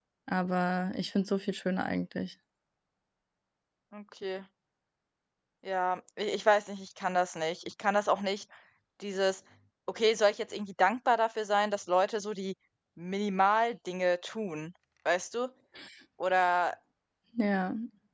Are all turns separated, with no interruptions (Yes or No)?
Yes